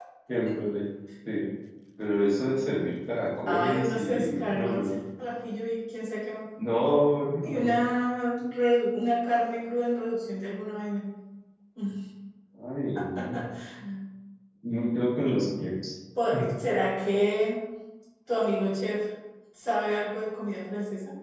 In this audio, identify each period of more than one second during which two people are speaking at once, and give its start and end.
3.5-4.9

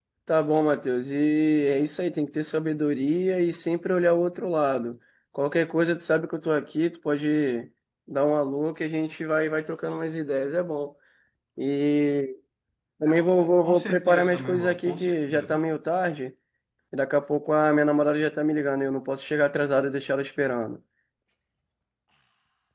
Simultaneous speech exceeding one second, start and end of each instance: 13.6-15.6

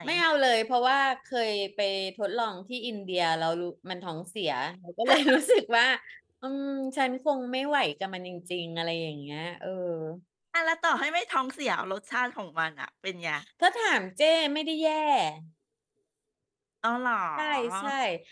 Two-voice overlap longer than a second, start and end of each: none

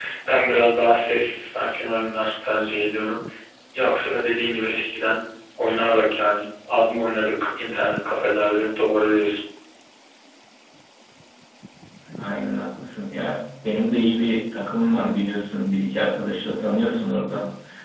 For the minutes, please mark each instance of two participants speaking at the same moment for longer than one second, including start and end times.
none

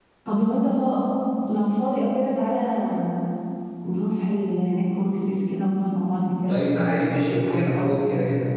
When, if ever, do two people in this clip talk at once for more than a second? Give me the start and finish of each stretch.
none

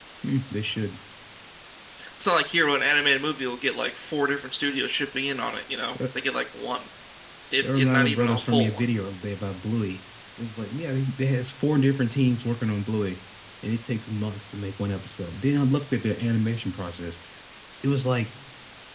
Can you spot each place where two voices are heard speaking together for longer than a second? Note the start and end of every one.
7.6-8.8

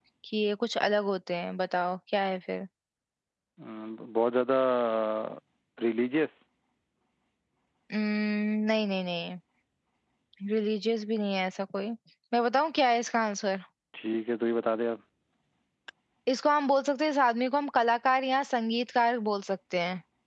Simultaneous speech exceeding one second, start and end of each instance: none

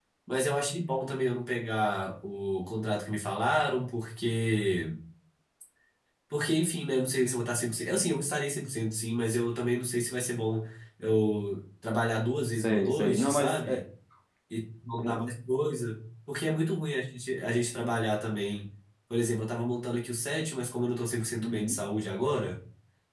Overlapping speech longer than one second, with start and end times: 12.5-13.8

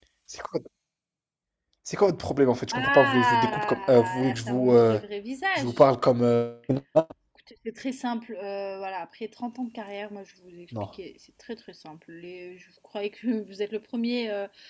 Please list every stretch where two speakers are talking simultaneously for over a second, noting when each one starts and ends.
2.7-5.0

